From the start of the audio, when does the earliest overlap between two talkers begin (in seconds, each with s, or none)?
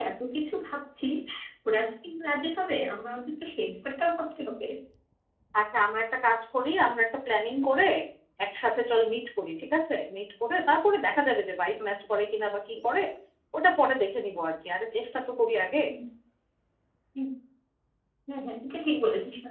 none